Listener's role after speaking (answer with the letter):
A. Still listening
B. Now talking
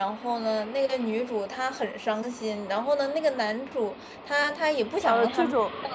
B